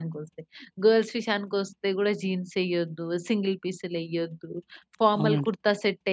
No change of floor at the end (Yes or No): Yes